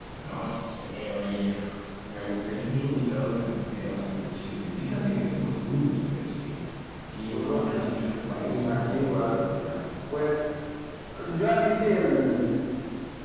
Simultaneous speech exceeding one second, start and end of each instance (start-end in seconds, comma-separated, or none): 7.3-9.4